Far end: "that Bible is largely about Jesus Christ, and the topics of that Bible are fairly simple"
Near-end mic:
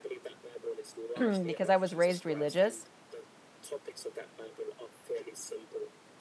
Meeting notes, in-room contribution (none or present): present